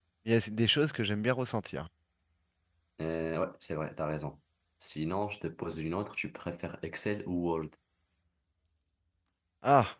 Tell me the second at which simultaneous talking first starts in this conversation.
none

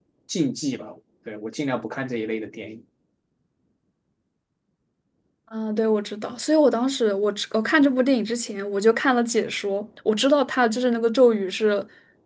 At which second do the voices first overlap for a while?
none

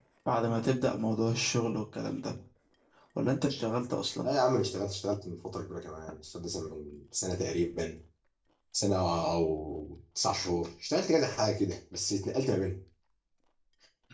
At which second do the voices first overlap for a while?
none

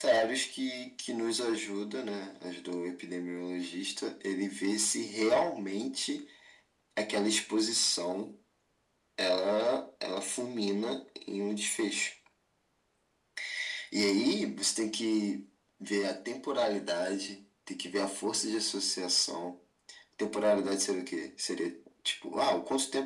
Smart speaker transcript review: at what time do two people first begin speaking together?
none

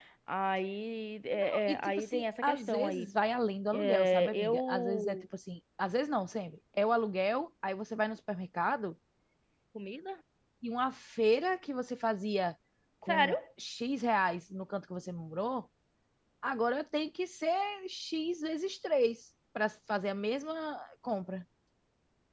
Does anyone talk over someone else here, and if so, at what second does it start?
1 s

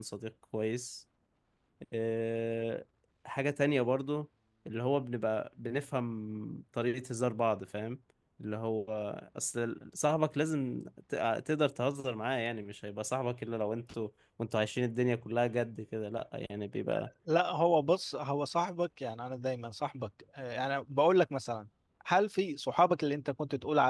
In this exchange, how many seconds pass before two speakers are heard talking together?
none

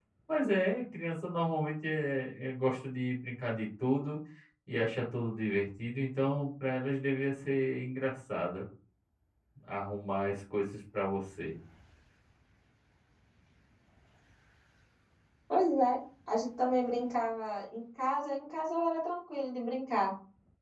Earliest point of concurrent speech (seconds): none

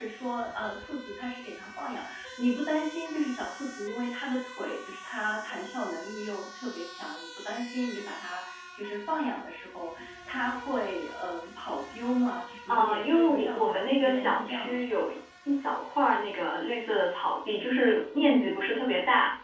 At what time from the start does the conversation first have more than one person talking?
13 s

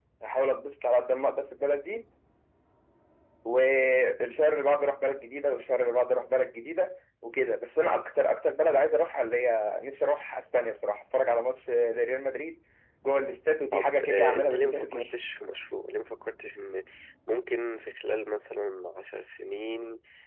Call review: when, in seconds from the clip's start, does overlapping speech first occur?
14 s

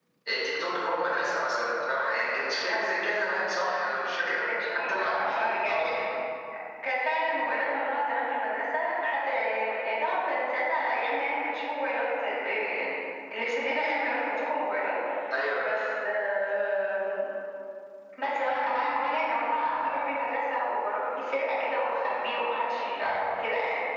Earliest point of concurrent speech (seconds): 4 s

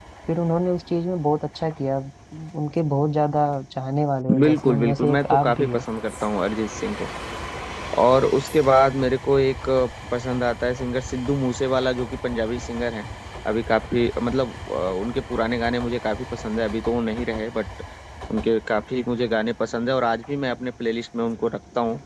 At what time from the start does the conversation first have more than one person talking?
4 s

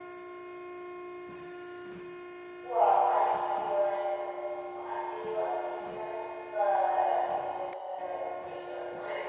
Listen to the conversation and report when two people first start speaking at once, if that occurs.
none

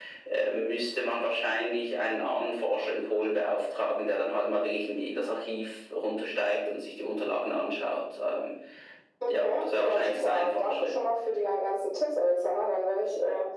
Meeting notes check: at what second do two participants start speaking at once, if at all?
9 s

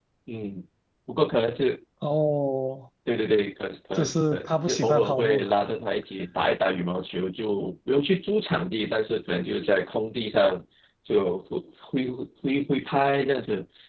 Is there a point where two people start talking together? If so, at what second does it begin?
4 s

